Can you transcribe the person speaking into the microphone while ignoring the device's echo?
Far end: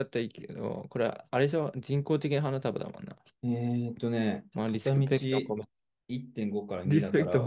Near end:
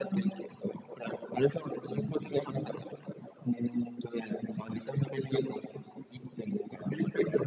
うんうん

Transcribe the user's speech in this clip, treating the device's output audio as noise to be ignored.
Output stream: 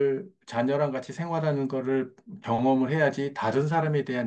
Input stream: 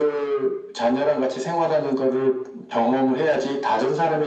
none

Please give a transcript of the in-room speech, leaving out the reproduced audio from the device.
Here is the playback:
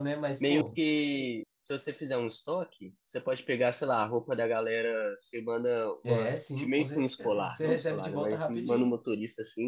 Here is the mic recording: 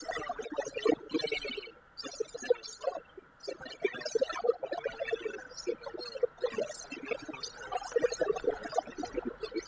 none

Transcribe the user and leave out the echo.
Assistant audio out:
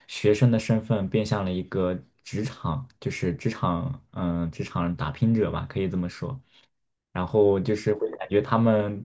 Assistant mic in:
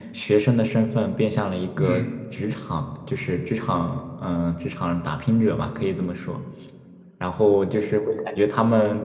嗯

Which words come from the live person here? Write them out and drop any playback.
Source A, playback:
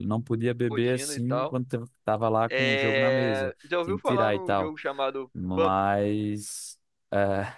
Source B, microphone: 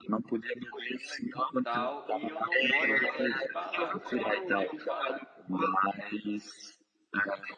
e tal. E eu não gosto é de balada. Eu detesto balada,

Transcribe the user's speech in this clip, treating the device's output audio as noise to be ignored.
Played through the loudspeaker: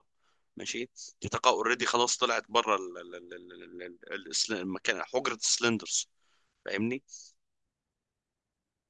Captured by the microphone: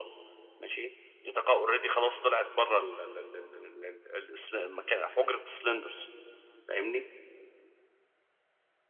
none

